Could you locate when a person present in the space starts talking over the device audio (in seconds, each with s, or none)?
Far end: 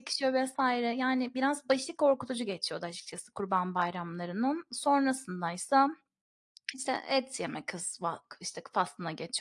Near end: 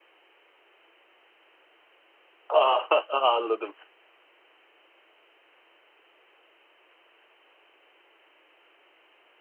2.5 s